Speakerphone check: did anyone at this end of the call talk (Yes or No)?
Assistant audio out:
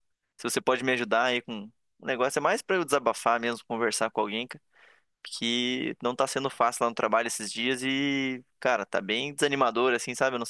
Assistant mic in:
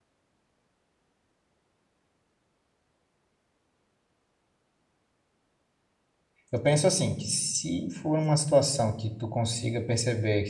Yes